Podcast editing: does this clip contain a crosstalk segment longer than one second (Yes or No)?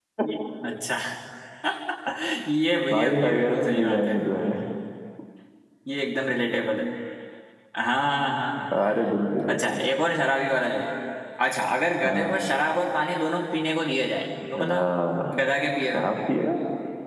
Yes